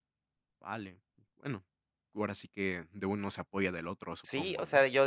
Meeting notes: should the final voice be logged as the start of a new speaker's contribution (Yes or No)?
Yes